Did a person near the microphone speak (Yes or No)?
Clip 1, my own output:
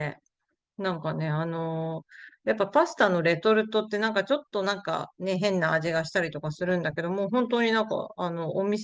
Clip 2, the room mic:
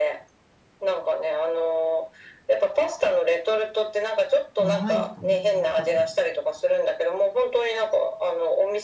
Yes